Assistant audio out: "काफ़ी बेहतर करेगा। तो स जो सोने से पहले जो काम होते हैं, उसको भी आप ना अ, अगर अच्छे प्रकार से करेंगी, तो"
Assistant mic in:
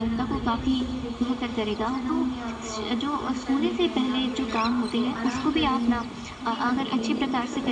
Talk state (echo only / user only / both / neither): both